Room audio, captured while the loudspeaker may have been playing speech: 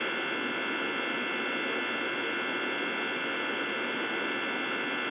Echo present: No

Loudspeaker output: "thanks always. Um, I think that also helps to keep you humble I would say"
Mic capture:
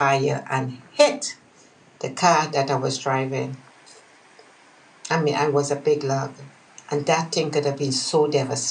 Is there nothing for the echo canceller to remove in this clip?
Yes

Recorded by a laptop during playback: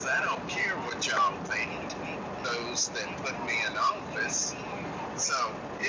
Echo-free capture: No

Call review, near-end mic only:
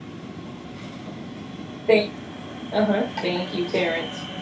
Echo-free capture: Yes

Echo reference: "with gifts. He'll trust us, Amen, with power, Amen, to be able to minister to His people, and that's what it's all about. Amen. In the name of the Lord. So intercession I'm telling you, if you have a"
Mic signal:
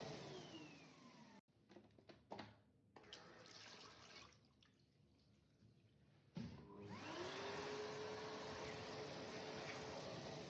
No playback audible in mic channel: Yes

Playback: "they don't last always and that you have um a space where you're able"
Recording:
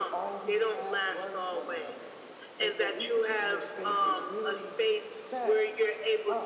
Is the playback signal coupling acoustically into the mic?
Yes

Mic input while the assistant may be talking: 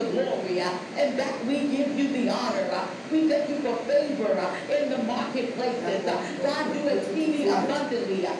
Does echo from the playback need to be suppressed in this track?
Yes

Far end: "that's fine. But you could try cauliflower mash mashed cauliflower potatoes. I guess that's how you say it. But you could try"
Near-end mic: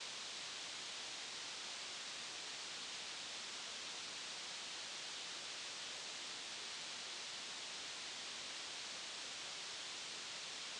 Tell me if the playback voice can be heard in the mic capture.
No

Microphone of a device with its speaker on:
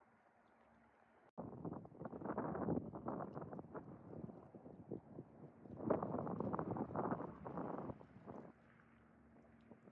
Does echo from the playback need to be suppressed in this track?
No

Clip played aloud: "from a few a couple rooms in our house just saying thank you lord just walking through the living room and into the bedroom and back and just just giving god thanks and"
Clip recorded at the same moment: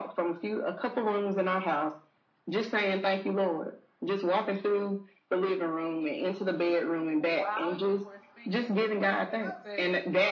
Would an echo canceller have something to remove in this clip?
Yes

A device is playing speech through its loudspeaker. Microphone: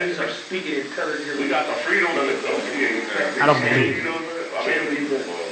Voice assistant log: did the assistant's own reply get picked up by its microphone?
Yes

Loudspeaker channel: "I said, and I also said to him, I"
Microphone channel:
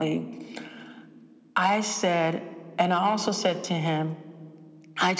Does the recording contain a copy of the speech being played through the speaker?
Yes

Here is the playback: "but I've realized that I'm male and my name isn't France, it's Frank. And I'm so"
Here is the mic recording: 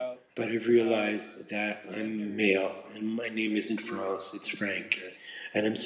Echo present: Yes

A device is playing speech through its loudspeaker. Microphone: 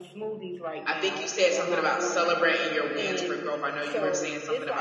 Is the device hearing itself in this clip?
Yes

